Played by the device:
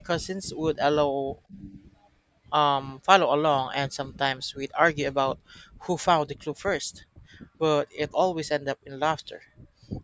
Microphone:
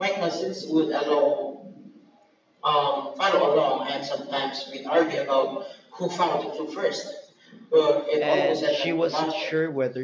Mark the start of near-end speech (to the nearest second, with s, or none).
8 s